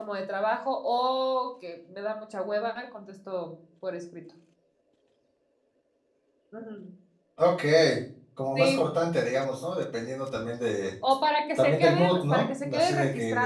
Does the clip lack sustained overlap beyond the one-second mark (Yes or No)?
No